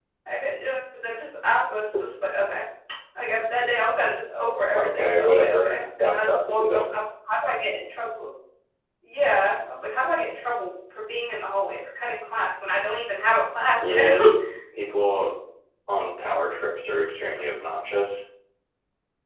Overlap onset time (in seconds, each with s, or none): 4.8 s